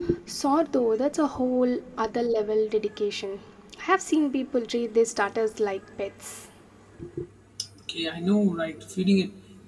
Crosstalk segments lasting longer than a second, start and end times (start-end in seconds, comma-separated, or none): none